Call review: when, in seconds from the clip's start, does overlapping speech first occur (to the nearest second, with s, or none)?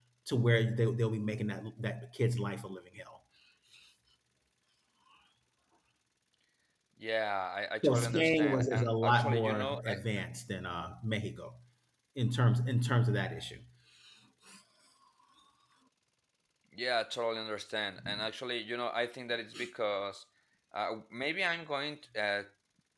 8 s